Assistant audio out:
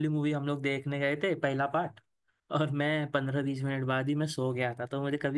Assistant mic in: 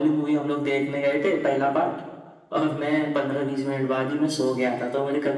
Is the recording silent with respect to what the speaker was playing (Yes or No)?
No